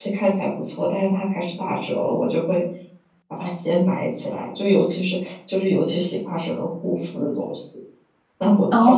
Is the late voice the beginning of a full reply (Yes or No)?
Yes